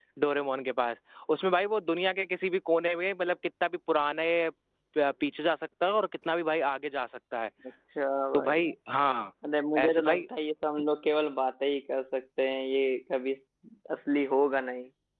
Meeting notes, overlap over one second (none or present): none